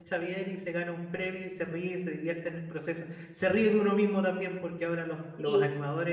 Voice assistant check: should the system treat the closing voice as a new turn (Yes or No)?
No